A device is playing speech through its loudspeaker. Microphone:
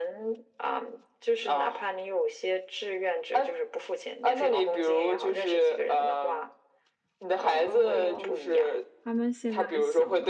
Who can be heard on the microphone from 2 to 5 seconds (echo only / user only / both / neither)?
echo only